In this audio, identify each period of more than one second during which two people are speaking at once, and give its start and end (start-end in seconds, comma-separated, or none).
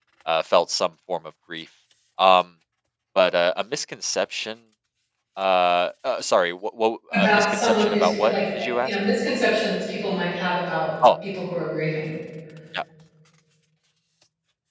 7.1-9.0